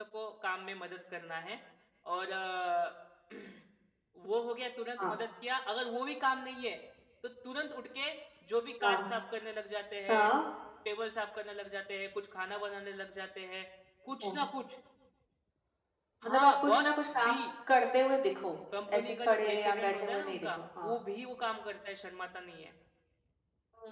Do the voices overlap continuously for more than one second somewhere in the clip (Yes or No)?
Yes